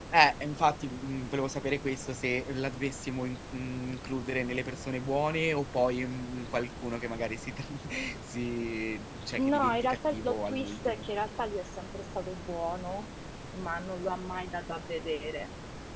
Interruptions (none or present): present